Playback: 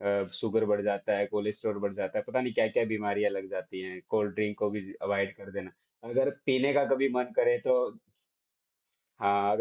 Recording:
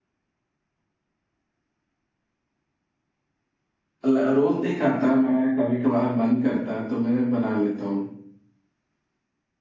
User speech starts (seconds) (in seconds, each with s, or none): 4.0 s